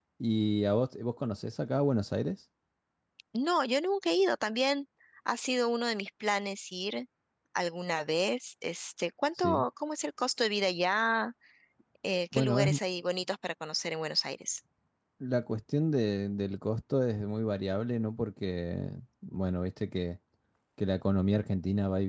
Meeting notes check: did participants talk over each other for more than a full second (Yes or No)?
No